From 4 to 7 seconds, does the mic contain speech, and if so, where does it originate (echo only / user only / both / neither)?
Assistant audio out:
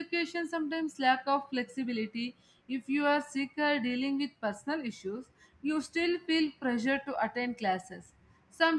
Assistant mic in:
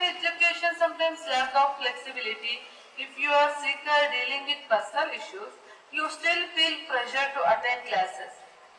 echo only